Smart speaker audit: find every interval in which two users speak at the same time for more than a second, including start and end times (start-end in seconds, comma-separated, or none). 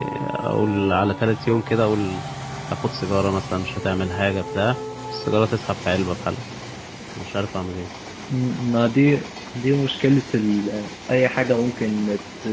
none